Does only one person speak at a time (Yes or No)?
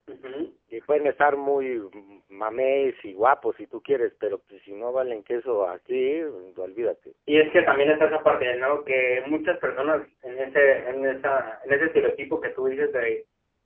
Yes